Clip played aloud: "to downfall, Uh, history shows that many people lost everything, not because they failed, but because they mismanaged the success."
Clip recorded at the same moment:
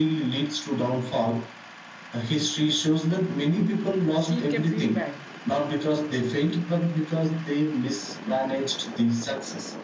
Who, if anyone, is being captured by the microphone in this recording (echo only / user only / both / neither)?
both